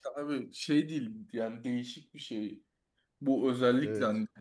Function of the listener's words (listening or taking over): listening